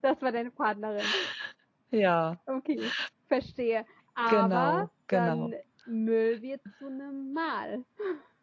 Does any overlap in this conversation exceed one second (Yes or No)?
Yes